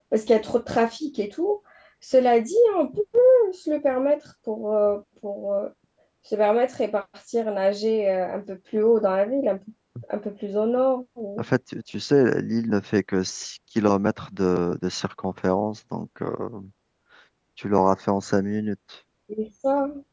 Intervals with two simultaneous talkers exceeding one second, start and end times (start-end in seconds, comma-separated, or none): none